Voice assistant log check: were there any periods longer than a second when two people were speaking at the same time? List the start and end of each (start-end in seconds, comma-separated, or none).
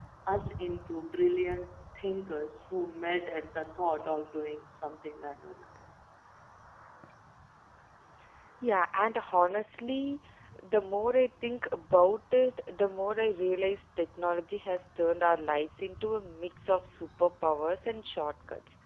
none